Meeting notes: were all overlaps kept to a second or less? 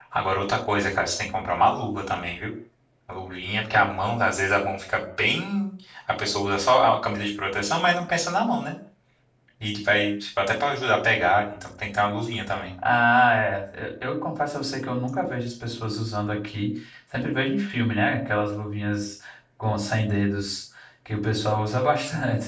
Yes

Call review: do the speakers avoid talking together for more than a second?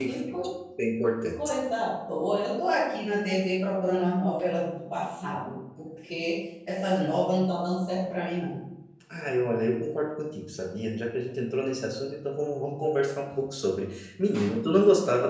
Yes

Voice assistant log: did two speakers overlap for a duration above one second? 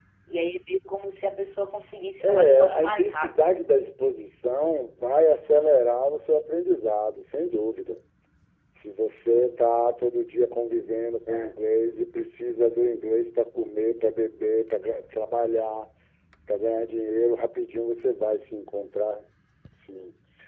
Yes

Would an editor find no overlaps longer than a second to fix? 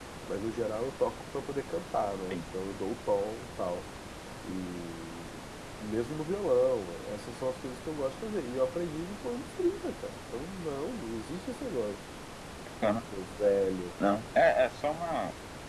Yes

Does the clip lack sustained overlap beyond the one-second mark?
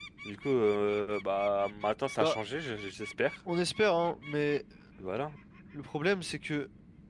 Yes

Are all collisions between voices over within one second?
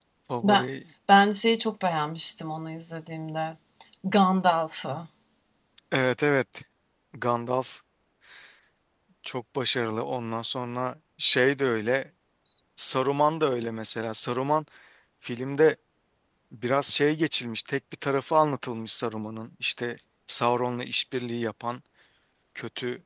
Yes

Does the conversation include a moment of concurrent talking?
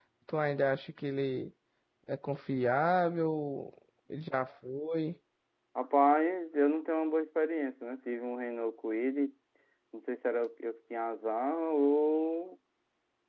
No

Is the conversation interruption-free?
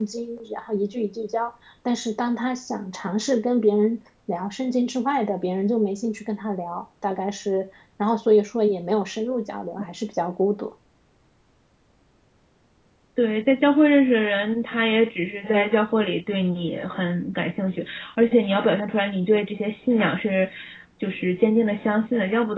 Yes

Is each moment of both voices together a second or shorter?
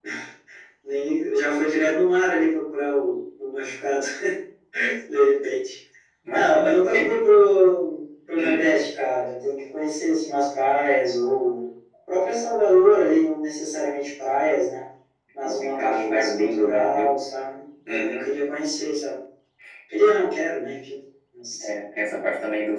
No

